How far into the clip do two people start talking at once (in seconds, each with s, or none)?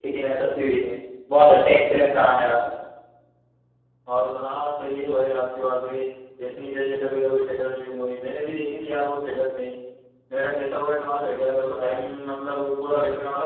none